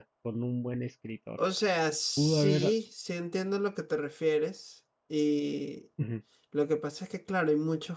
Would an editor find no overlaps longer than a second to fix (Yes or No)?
Yes